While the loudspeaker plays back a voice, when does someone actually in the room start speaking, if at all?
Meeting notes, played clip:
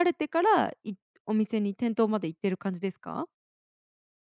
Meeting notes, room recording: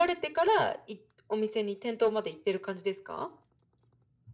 none

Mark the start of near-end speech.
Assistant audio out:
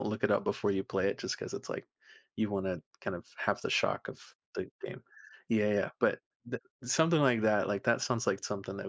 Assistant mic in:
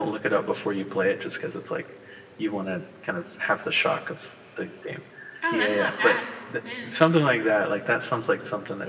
5 s

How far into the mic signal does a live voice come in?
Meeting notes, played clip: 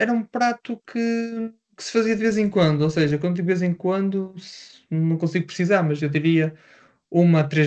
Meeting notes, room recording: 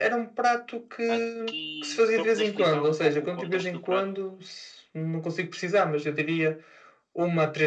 1 s

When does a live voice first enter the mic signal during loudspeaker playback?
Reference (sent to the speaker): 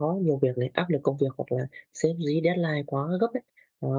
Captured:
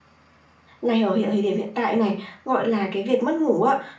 1 s

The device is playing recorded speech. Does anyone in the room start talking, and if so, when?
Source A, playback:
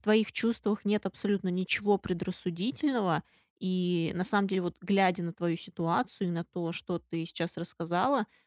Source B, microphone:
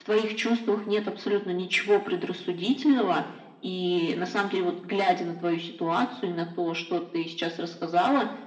none

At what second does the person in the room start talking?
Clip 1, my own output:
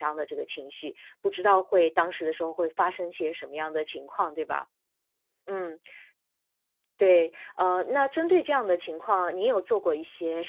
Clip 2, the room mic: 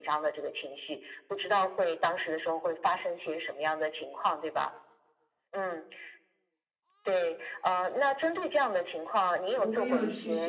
10 s

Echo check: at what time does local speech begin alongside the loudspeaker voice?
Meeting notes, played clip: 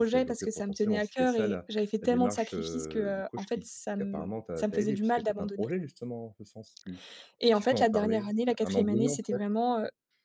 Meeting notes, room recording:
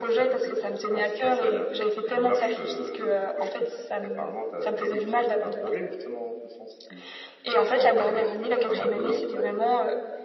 none

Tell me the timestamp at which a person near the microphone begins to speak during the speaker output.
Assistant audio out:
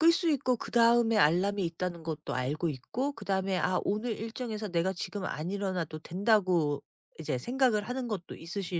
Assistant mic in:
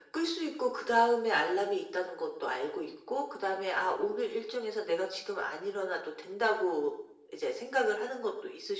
none

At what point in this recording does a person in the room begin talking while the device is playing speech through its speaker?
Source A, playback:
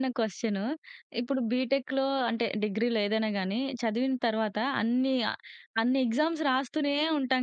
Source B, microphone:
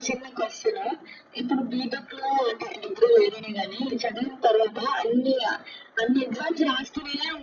none

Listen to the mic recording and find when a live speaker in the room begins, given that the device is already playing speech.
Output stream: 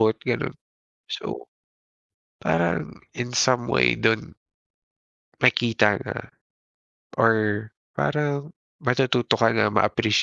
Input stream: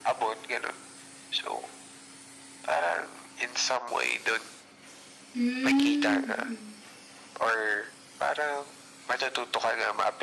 5 s

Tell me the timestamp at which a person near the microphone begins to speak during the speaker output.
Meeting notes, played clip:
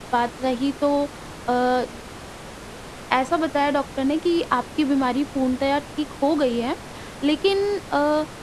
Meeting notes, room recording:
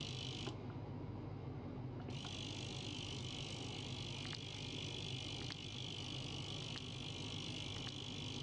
none

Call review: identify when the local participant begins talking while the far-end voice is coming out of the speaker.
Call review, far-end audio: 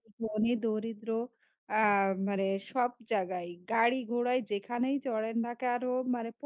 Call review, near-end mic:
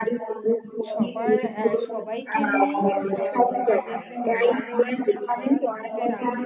1 s

